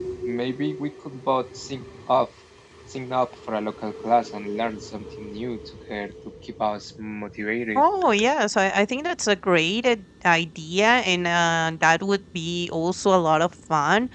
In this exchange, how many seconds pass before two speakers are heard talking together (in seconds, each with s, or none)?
none